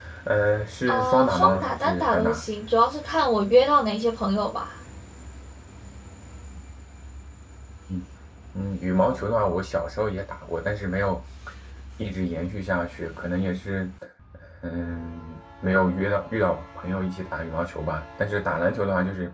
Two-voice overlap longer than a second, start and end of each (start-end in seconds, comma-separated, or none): 0.9-2.4